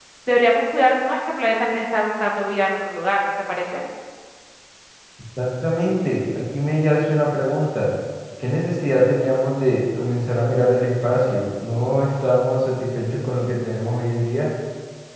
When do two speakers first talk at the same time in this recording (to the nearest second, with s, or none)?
none